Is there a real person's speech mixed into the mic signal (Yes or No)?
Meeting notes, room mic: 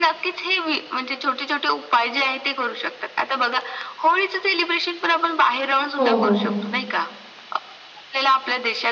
Yes